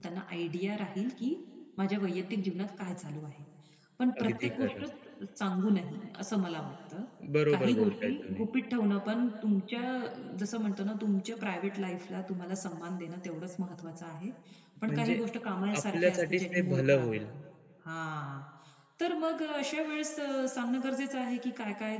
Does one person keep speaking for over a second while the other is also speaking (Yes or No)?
Yes